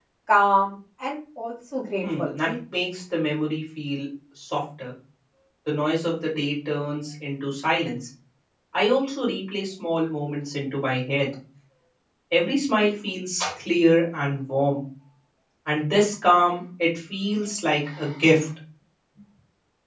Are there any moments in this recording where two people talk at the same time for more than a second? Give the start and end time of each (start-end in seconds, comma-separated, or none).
none